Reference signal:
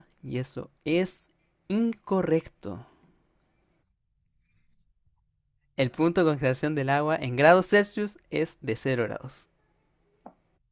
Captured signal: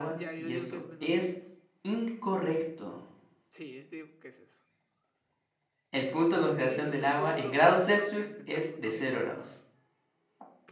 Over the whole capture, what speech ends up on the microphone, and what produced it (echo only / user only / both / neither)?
both